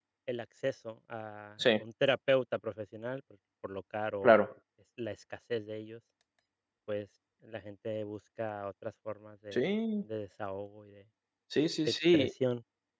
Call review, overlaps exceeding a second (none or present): none